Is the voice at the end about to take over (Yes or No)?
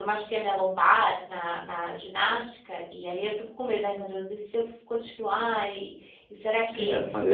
Yes